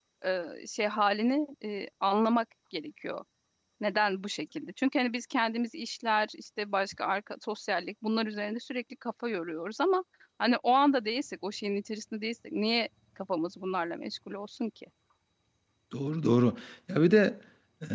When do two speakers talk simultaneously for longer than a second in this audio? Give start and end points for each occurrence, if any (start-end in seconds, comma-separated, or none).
none